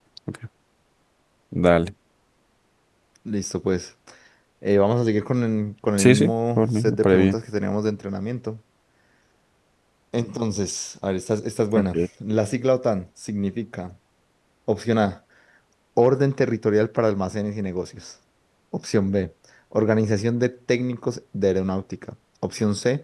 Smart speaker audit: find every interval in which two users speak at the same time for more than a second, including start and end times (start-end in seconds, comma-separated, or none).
6.0-7.4